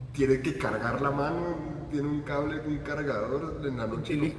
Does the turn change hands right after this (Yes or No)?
Yes